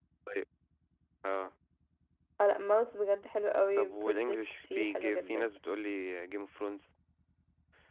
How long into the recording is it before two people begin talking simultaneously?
3.8 s

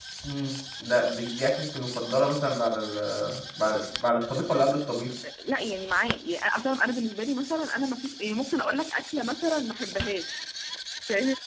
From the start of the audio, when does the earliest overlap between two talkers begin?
none

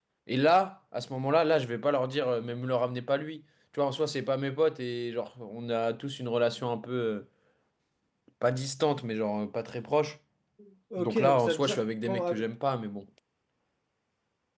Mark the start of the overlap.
11.0 s

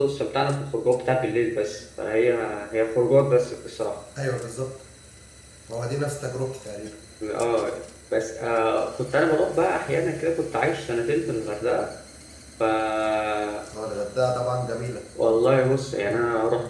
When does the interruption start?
none

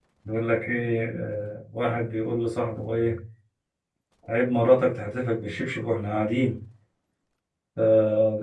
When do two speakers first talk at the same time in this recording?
none

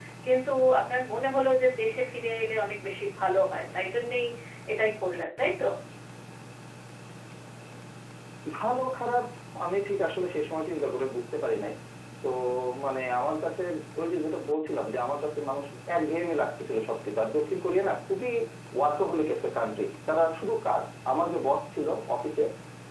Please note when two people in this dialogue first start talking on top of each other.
none

